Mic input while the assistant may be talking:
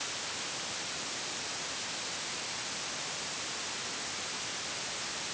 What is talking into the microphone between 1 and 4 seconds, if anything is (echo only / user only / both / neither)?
neither